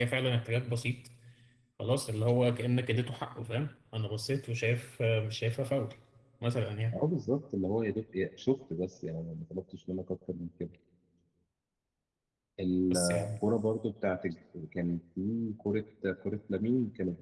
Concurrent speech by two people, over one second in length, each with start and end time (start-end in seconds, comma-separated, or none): none